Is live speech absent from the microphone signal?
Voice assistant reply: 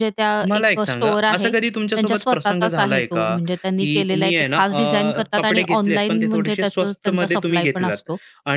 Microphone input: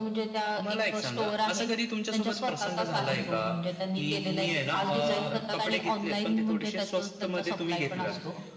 Yes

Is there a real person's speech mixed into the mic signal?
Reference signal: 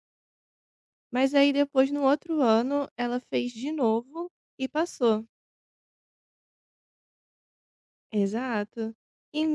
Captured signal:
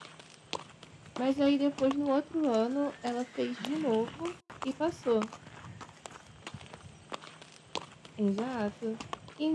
No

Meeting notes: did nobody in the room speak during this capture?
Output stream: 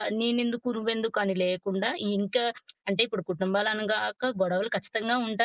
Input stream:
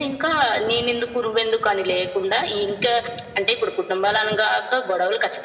Yes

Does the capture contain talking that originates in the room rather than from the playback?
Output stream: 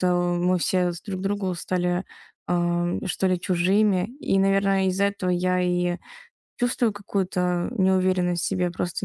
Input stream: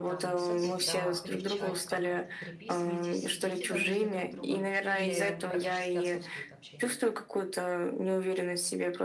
Yes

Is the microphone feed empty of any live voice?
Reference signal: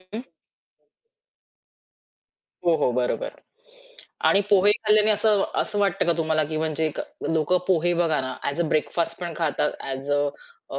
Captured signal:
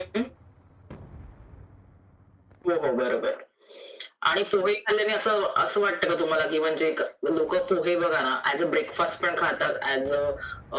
Yes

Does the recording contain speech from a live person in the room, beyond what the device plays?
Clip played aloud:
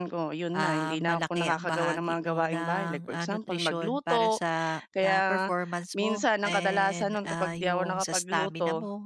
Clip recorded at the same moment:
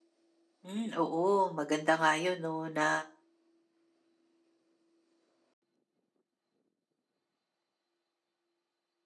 Yes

